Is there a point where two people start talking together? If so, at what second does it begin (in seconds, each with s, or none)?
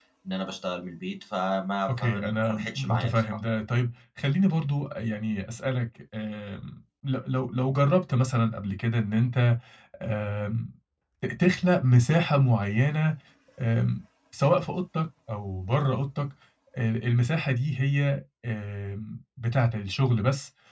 1.9 s